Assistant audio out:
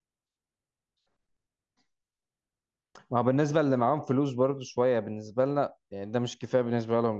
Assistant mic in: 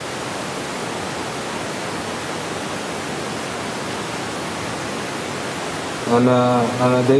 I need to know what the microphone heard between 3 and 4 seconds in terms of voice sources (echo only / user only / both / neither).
neither